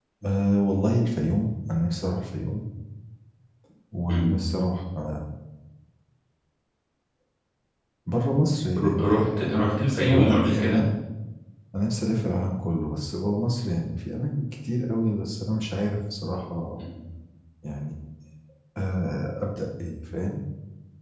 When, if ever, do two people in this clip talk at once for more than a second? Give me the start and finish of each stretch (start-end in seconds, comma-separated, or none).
8.8-10.7